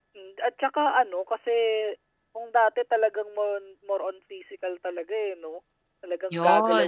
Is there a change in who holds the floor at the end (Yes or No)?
No